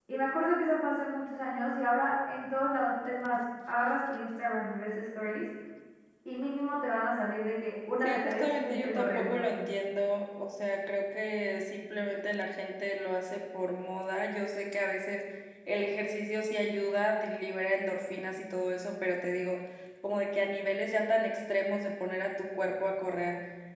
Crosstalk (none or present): present